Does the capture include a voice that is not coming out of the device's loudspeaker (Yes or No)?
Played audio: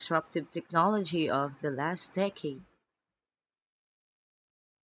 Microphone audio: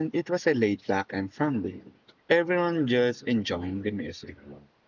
Yes